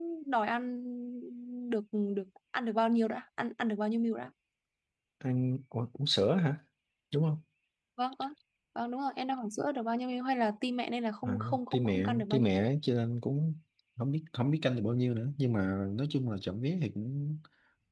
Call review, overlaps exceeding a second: present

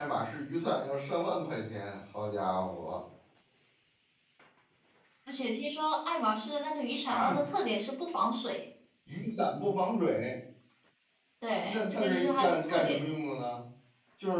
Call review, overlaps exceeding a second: present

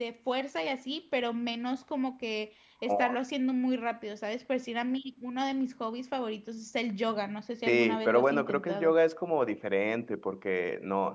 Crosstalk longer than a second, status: present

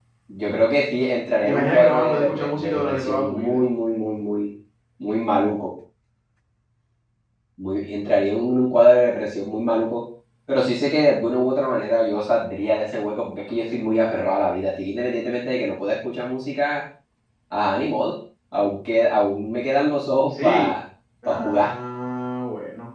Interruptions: present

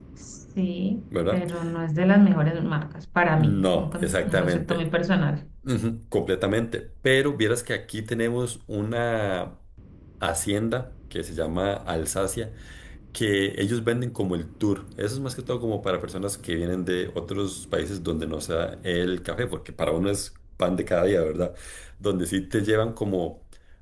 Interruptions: present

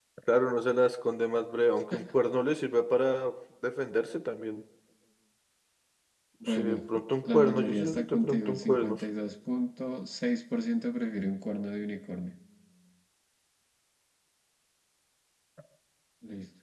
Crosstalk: present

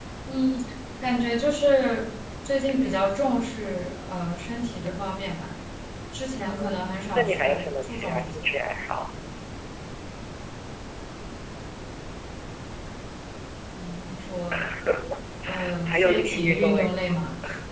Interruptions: present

